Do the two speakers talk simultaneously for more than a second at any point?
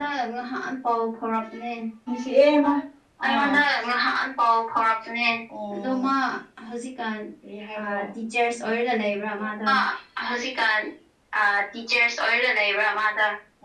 No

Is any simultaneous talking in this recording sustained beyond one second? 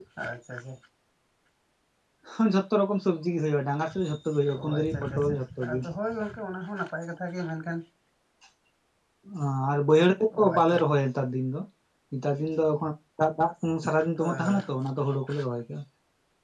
Yes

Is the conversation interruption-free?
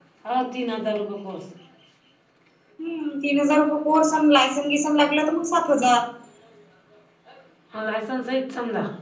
Yes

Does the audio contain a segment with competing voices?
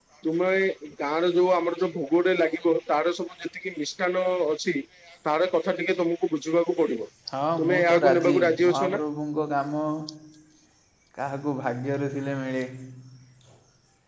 Yes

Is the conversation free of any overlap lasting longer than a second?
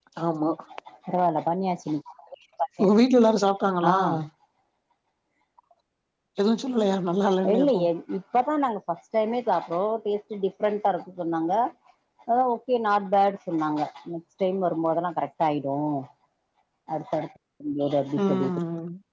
Yes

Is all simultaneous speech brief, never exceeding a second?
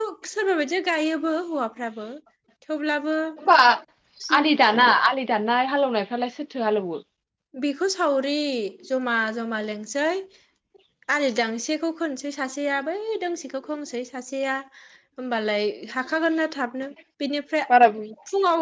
Yes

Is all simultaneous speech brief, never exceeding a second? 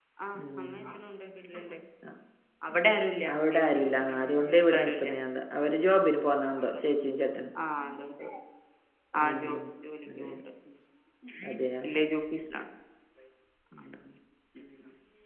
No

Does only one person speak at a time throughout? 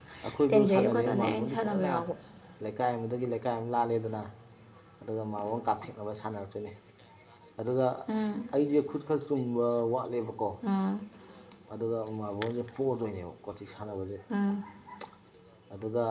No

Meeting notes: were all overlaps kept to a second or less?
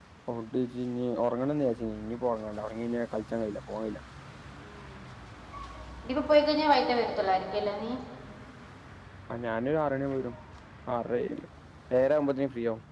Yes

